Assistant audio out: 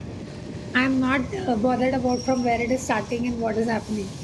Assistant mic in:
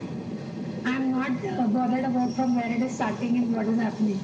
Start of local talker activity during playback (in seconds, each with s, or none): none